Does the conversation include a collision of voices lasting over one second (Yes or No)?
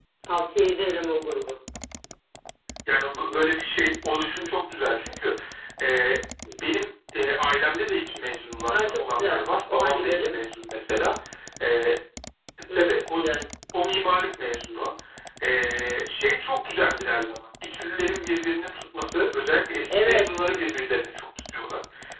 Yes